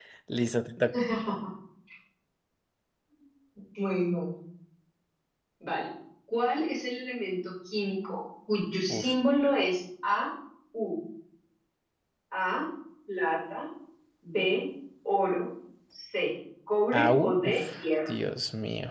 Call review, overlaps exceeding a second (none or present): present